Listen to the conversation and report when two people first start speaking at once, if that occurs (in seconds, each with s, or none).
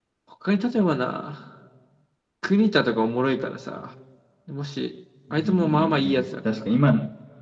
5.3 s